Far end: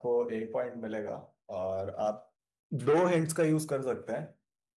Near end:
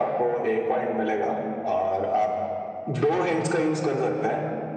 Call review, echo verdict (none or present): present